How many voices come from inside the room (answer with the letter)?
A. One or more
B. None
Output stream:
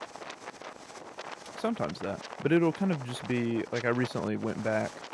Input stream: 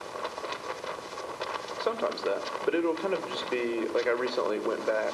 B